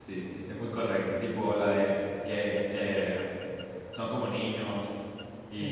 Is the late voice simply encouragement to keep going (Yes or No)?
Yes